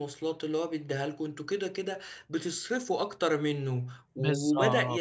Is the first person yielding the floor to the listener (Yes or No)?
No